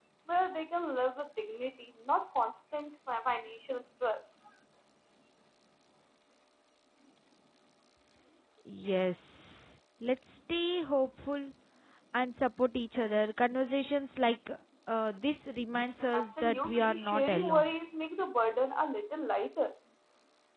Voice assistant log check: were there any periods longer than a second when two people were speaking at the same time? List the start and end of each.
16.1-17.7

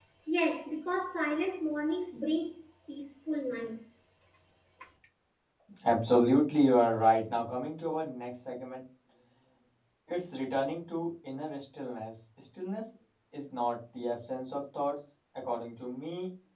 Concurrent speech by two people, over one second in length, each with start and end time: none

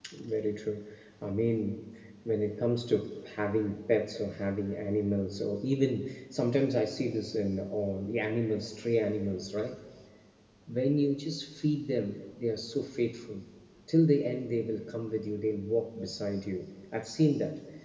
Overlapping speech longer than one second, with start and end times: none

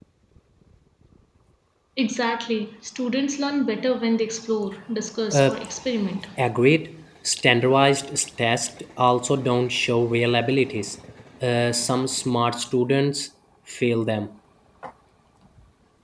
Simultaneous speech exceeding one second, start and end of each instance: none

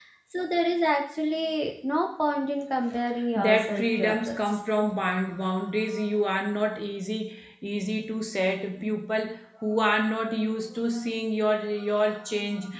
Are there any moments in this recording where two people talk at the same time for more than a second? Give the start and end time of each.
3.4-4.6

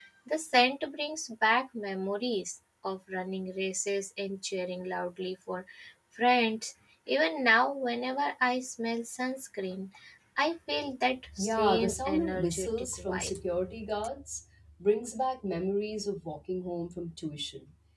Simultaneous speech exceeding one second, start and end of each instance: 11.4-13.4

